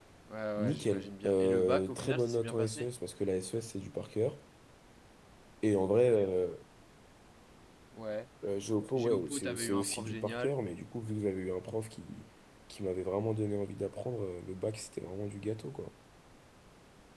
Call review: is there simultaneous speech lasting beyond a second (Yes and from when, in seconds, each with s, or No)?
Yes, from 0.6 s